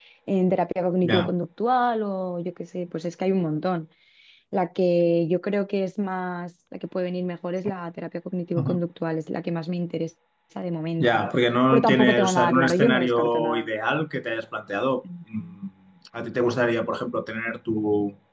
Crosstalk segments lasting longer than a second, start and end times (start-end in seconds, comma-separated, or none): 11.7-13.7